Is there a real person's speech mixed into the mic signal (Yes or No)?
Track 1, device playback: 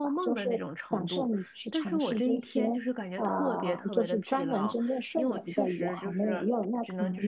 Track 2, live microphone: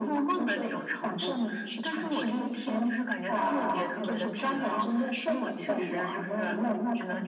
No